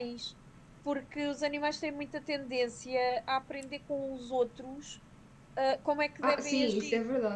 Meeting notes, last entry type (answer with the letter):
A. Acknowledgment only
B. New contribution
B